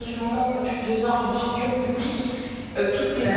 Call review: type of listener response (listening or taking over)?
listening